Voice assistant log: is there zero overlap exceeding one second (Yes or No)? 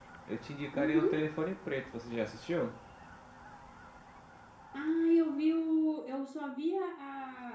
Yes